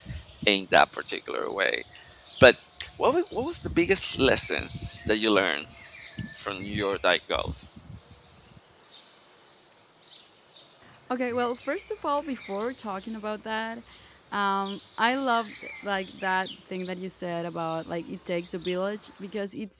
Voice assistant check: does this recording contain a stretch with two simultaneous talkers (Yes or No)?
No